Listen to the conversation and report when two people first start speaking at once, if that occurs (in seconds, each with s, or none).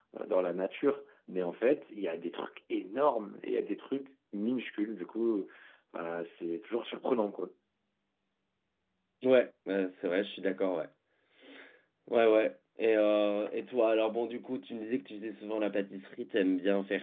none